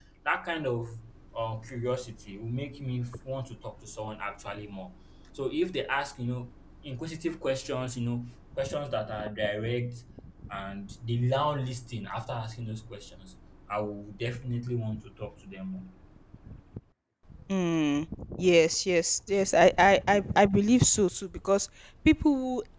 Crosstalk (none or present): none